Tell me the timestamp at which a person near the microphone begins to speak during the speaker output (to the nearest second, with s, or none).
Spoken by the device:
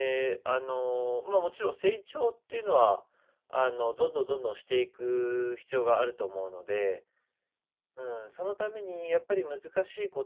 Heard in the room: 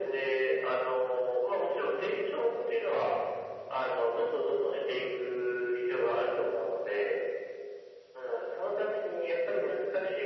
none